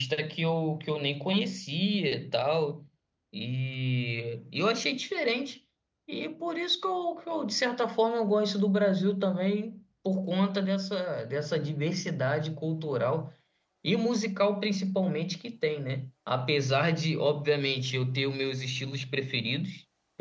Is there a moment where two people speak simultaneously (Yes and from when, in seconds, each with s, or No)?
No